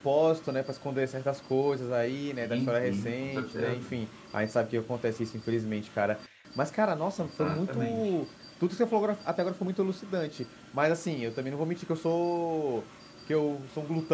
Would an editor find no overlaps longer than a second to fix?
No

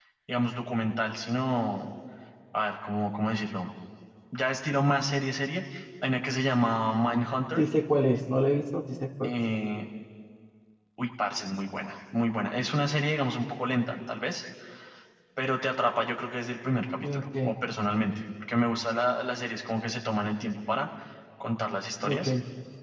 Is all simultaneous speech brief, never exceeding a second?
Yes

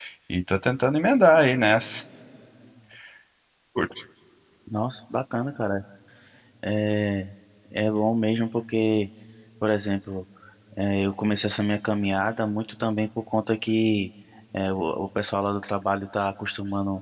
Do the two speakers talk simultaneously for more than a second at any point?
No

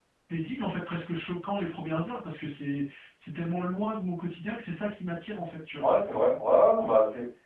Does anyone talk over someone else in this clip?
No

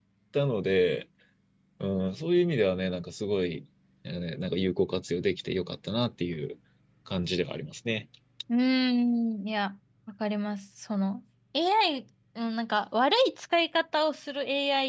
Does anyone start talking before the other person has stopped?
No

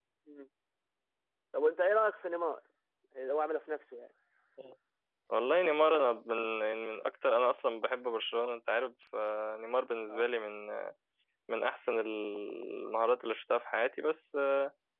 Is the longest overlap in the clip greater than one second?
No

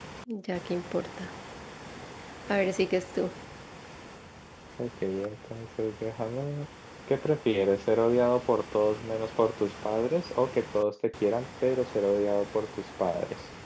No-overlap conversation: Yes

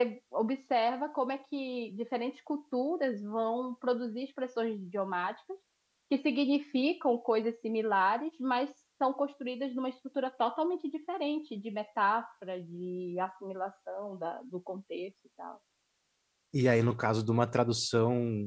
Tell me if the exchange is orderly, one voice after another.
Yes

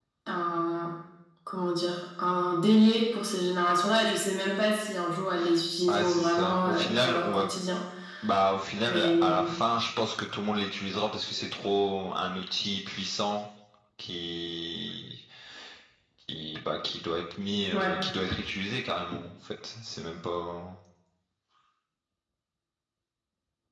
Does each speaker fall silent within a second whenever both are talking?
No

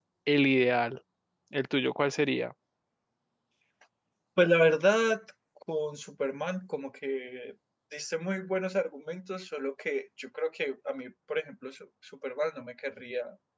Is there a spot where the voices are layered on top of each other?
No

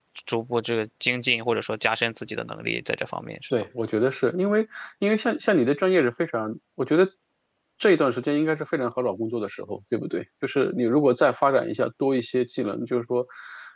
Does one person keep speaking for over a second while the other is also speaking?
No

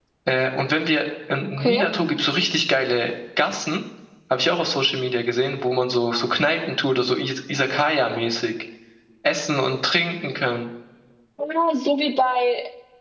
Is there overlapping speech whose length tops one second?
No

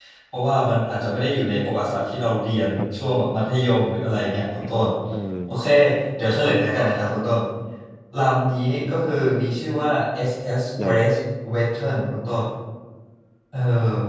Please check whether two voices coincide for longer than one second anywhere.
No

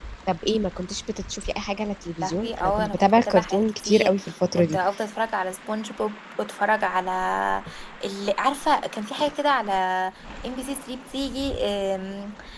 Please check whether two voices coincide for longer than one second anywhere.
Yes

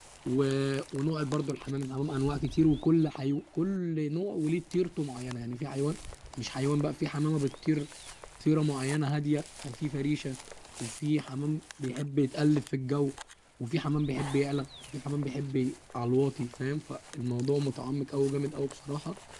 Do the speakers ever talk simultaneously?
No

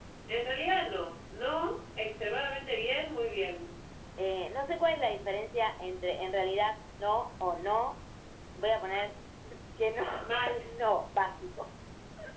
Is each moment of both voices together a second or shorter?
Yes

